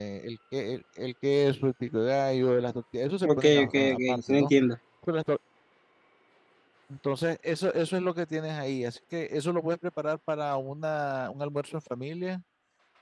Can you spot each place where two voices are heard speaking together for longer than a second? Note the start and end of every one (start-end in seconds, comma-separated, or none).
3.2-4.5